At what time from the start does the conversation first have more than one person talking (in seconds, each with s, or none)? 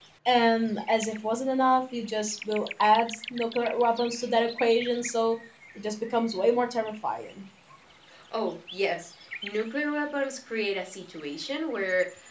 none